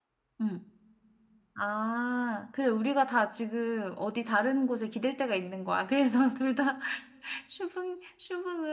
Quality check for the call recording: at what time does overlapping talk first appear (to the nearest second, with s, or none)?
none